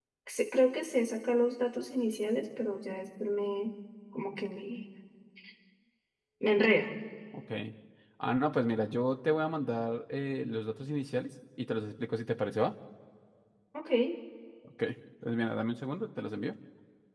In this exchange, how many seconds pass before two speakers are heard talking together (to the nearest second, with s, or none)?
none